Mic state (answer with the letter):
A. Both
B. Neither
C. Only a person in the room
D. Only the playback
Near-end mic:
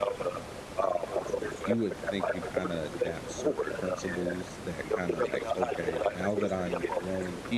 A